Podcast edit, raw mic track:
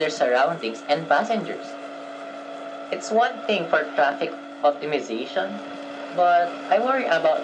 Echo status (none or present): present